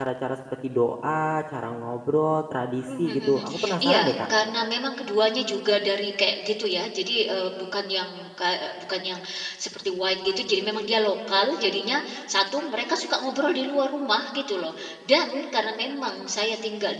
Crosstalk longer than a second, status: present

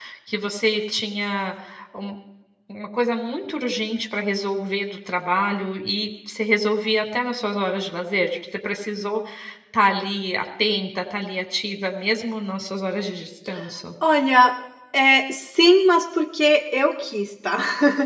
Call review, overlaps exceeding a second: none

